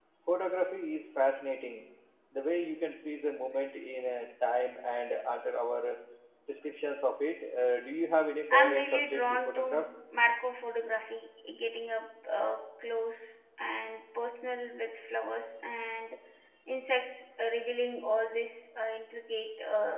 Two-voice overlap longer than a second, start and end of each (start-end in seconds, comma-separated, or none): 8.5-9.8